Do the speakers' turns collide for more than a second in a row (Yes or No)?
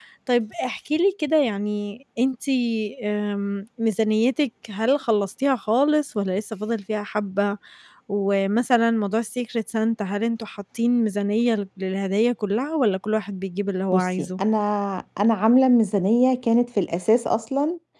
No